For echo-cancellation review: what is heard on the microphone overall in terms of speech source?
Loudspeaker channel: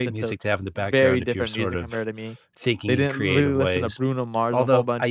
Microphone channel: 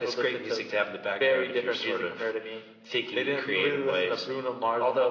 echo only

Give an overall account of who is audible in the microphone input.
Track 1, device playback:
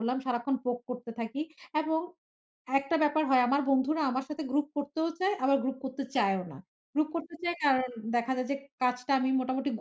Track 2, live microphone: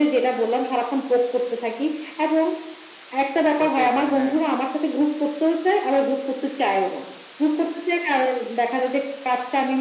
both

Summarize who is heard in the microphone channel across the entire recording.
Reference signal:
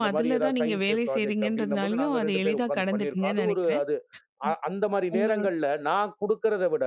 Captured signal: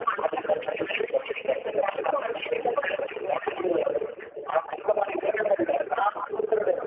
echo only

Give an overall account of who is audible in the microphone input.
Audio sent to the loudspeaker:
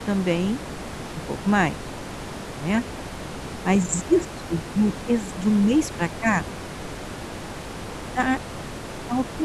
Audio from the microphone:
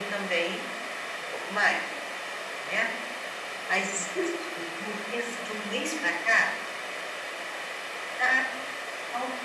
echo only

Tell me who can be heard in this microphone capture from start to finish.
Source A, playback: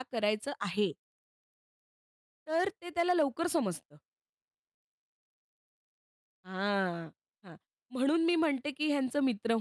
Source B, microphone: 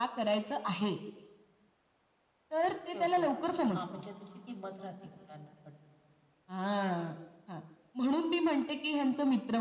both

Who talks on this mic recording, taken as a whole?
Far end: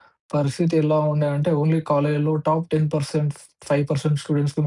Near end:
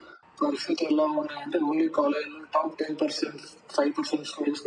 echo only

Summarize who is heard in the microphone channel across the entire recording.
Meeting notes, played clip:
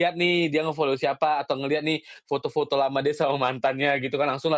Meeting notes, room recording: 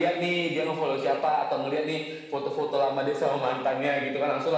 echo only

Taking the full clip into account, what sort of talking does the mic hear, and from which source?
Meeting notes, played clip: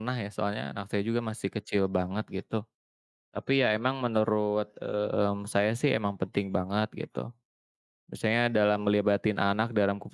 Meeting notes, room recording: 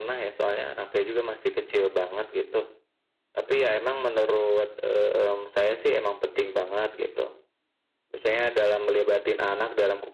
echo only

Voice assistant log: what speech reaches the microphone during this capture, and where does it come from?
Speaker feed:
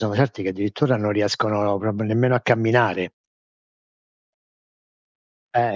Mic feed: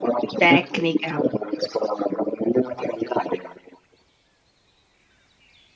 both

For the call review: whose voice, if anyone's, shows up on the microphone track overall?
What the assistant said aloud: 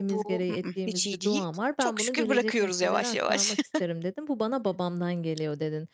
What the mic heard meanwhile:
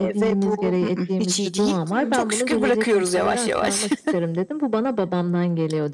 both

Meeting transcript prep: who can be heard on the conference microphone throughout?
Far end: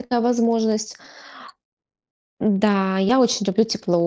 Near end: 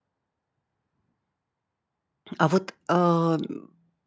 user only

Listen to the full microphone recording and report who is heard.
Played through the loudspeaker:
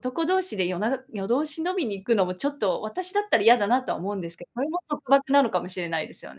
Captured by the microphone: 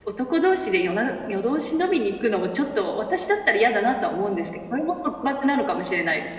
echo only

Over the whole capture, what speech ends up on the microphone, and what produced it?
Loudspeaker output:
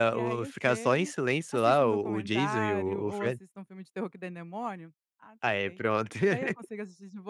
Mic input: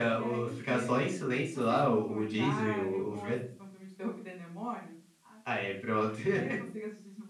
echo only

